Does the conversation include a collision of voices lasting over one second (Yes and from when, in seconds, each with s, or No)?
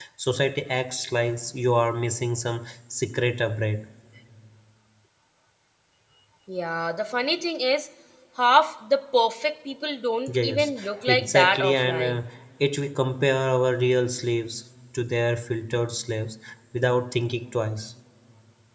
Yes, from 10.3 s